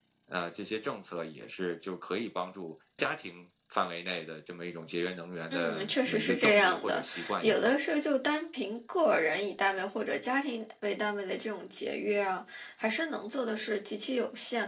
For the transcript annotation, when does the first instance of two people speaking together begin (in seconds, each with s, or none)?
5.5 s